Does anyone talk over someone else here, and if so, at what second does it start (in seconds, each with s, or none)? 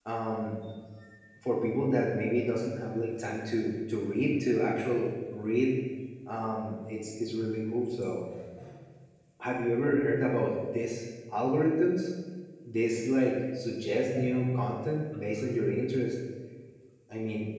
none